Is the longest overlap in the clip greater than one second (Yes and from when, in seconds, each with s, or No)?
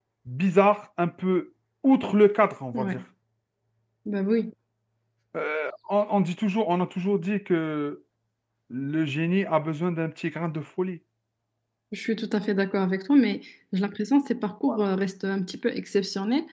No